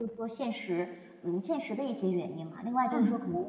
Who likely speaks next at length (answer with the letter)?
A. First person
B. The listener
A